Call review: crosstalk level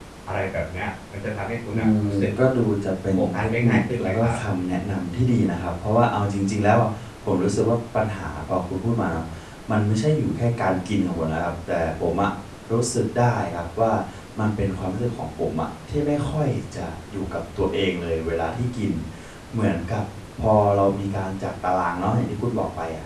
present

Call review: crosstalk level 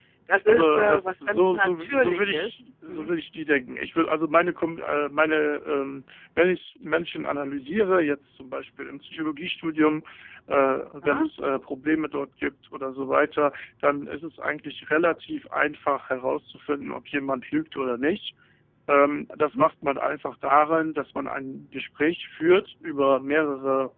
present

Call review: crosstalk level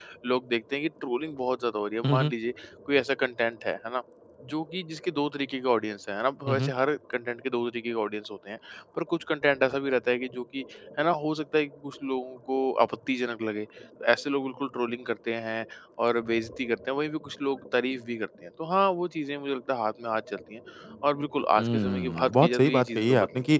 present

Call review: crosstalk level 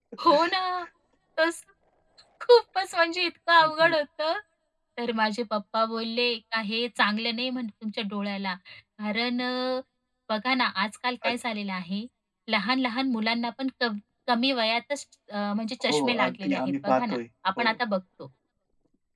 present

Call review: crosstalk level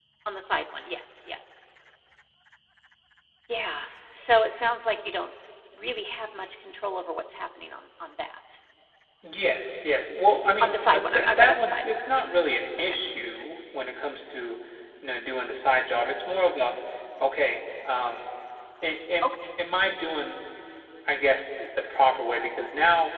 present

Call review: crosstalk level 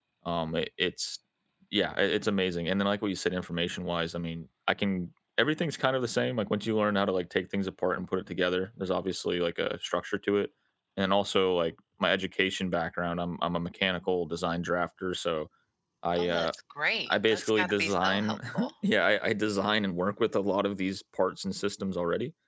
present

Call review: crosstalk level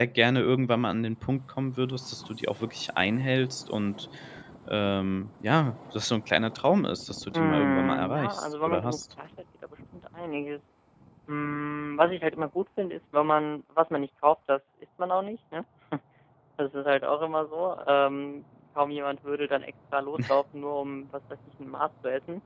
present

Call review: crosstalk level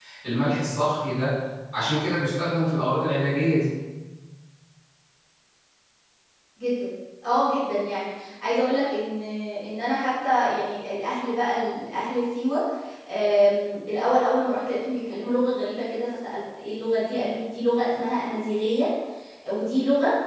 none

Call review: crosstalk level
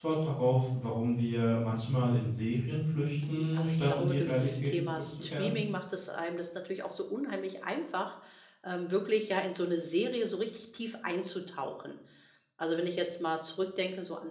present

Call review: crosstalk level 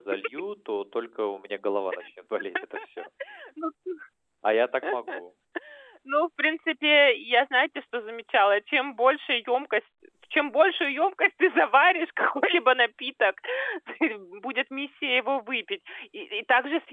none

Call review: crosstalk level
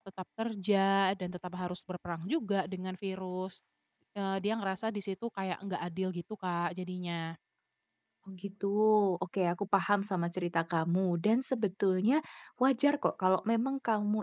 none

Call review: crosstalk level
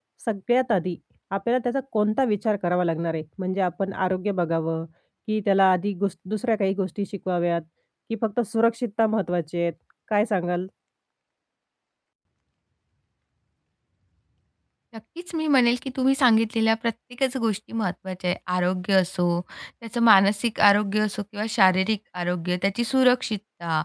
none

